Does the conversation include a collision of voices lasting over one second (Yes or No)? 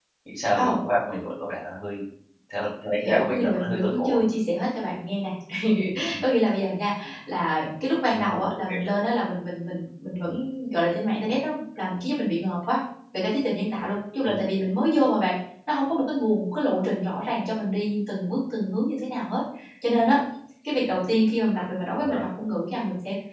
Yes